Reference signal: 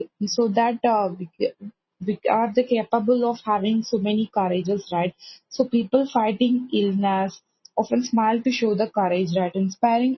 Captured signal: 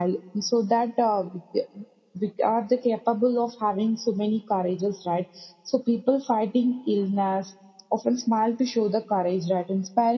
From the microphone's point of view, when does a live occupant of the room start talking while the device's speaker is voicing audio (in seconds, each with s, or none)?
none